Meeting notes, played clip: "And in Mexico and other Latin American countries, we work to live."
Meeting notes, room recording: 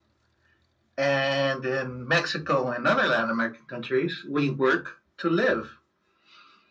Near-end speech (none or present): none